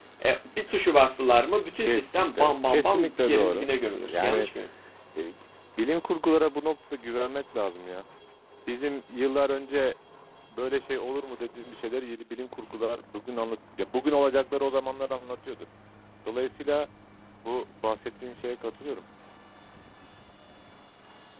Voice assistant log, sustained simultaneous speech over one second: present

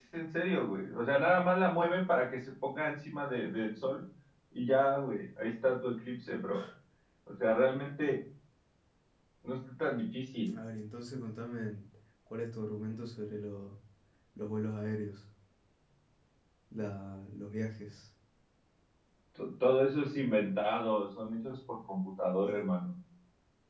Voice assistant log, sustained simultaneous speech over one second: none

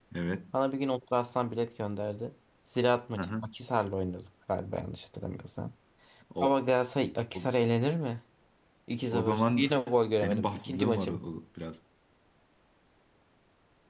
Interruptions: present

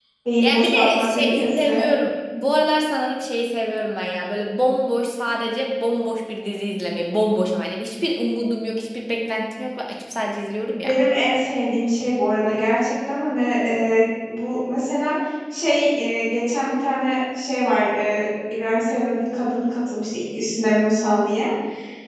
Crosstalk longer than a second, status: present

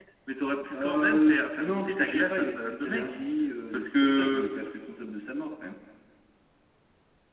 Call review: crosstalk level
present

